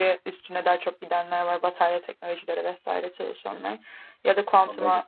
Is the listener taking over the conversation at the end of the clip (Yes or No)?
No